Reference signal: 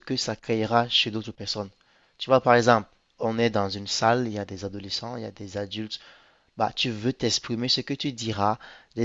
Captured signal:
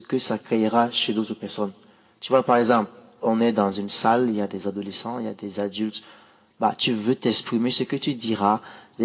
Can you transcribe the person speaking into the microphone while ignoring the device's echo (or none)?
none